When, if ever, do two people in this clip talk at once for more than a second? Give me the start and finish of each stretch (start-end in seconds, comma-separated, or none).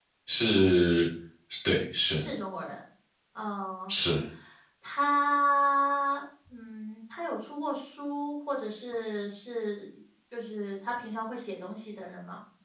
none